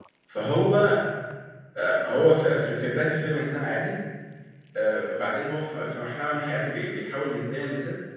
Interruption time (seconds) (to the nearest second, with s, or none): none